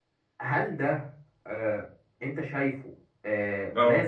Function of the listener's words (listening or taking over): listening